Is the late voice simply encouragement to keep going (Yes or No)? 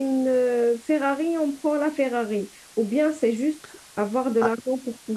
No